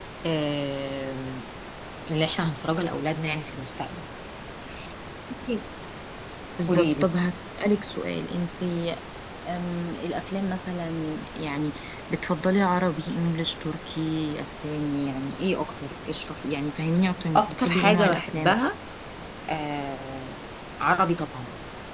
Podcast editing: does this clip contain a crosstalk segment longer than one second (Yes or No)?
Yes